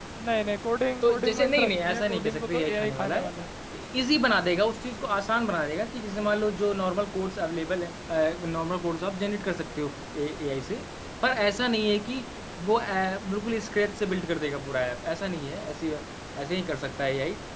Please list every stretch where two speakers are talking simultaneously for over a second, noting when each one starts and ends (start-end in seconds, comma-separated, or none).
1.0-3.3